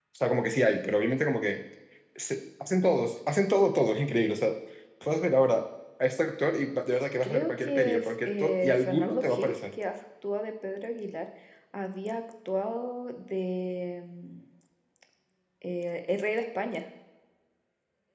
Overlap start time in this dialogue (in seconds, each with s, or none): 7.2 s